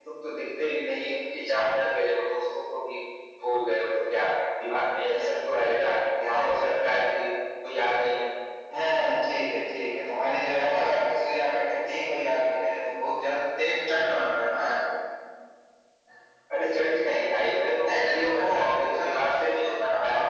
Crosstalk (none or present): present